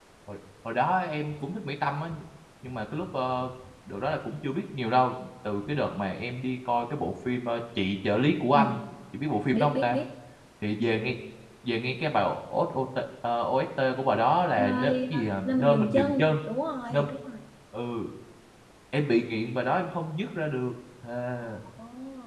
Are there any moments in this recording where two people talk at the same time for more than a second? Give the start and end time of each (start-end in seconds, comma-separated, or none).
14.6-16.4